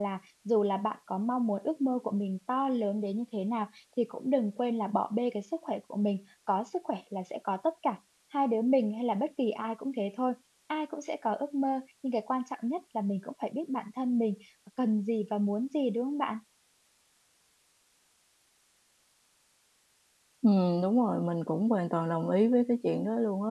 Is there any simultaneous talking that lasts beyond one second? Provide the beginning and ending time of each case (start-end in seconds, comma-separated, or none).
none